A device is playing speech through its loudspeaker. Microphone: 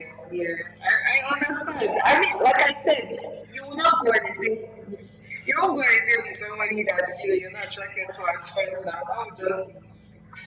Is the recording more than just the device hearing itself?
No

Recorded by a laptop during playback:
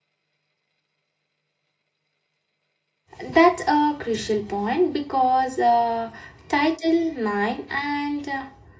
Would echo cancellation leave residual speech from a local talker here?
Yes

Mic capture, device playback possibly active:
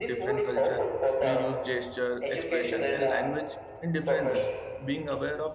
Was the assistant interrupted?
Yes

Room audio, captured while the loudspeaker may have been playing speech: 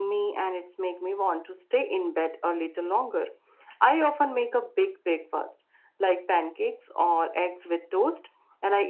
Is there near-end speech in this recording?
No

